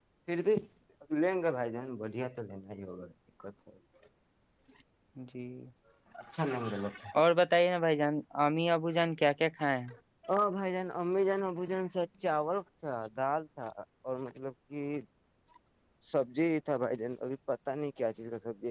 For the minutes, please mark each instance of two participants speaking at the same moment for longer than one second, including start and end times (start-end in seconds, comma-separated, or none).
none